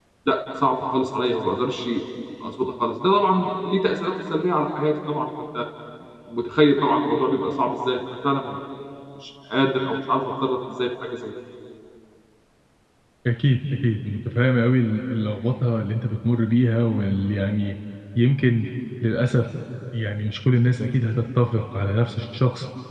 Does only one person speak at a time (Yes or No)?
Yes